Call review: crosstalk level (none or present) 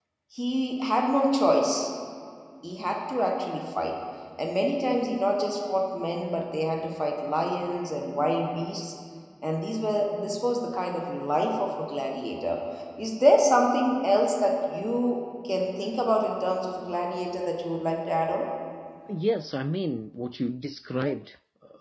none